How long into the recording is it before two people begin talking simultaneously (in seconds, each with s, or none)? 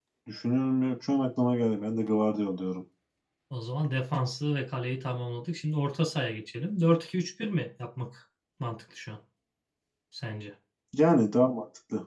none